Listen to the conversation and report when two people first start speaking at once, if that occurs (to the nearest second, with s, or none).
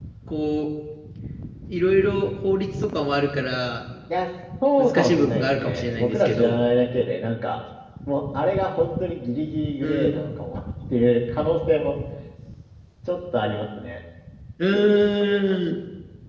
5 s